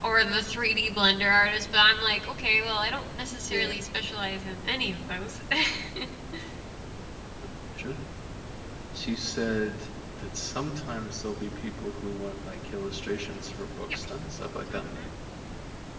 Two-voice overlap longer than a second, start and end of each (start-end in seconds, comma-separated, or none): none